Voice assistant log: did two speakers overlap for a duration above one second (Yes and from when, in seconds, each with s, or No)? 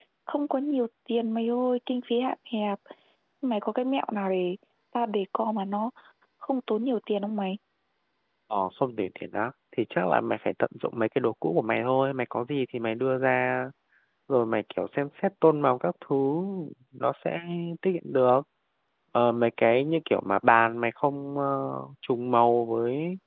No